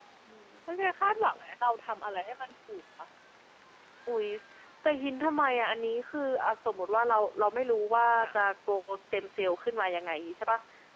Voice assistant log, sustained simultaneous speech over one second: none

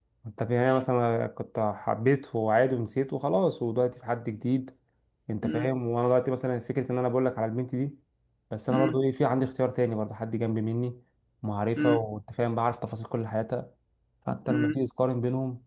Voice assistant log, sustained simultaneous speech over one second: none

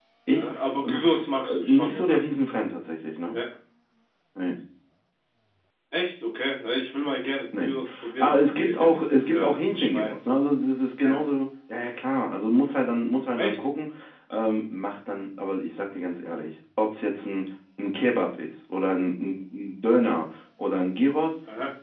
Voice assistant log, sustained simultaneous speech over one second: present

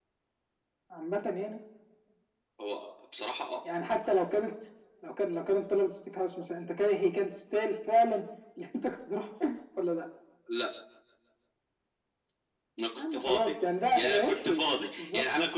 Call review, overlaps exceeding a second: present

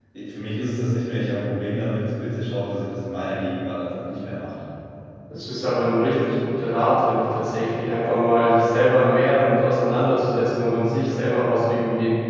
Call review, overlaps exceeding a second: none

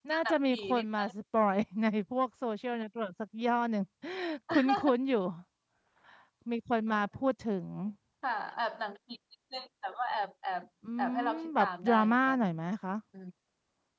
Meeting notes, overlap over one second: present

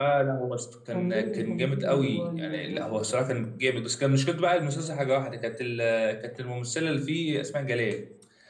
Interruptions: present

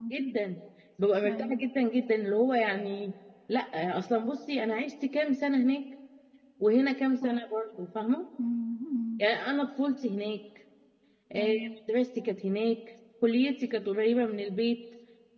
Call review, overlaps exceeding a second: none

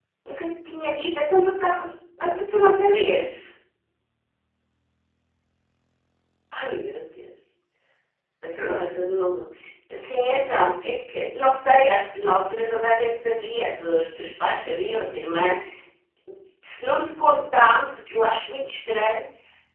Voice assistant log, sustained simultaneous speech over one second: present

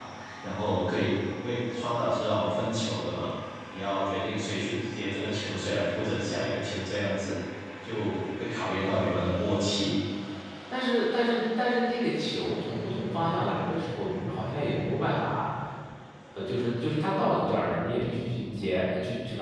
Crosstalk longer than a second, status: none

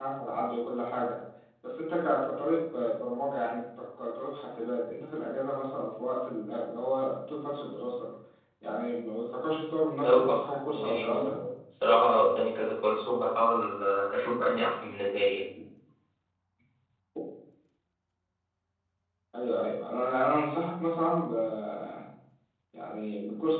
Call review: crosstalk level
present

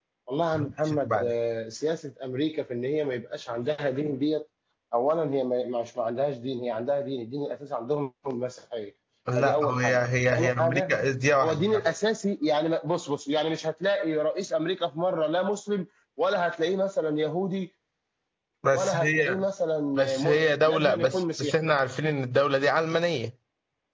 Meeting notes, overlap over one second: present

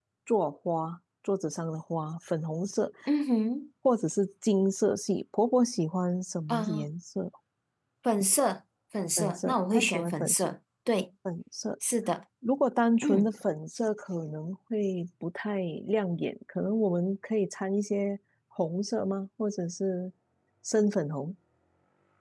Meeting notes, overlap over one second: present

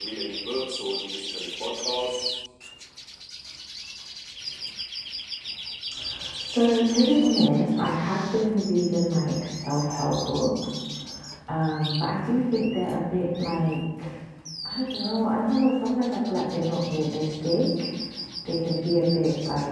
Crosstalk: none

